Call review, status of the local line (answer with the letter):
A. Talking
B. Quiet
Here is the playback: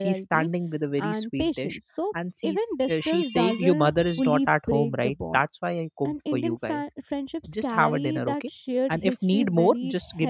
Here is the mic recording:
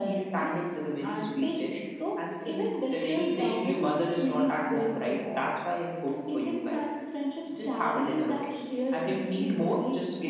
B